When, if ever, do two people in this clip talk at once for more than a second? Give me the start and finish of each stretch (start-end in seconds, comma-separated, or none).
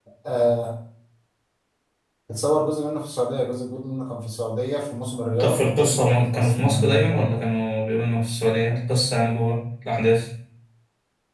5.4-7.4